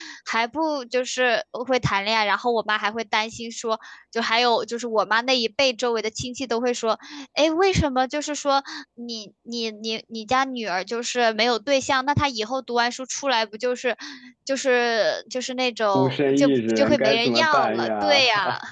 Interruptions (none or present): present